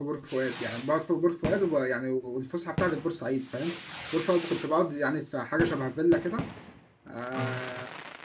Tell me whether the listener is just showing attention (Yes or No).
Yes